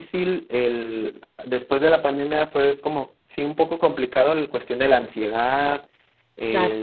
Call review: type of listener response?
listening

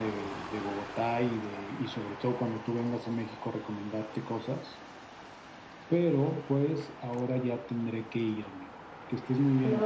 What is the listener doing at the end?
taking over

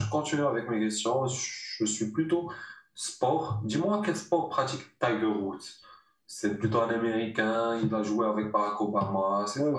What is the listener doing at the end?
taking over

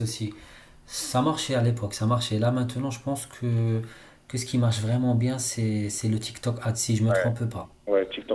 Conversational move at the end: taking over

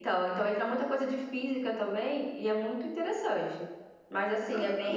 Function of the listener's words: listening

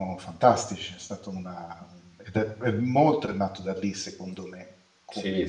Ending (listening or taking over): taking over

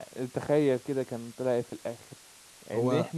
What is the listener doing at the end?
listening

